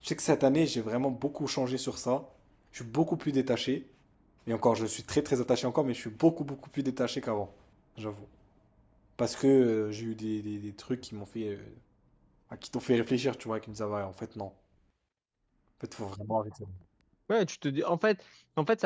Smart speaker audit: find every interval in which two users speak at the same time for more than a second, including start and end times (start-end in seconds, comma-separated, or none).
none